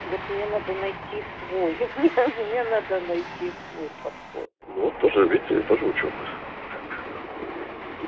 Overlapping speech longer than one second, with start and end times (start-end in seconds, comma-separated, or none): none